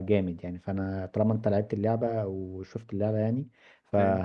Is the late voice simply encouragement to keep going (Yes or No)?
Yes